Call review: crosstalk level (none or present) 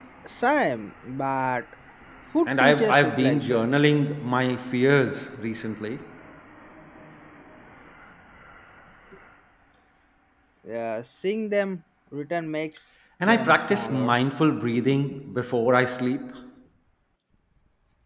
present